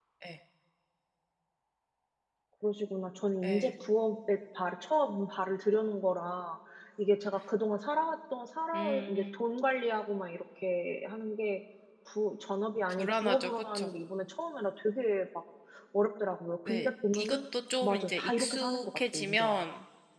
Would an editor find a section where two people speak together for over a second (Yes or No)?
Yes